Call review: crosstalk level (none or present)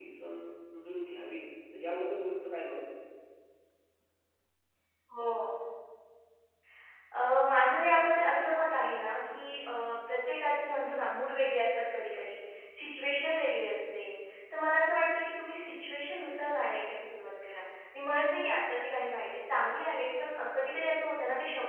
none